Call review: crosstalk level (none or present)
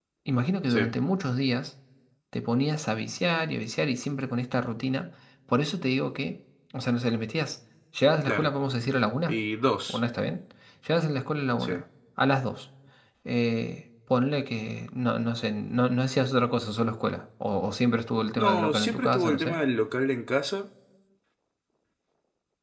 present